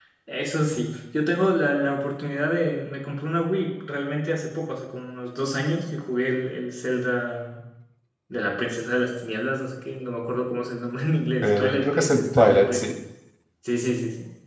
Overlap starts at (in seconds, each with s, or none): 11.4 s